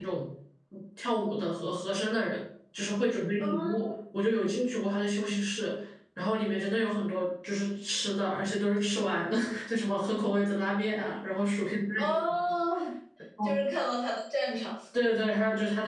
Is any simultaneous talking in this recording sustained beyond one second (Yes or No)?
No